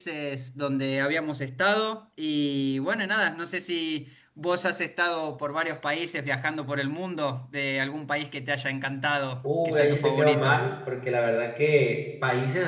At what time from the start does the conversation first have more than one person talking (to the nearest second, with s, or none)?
9 s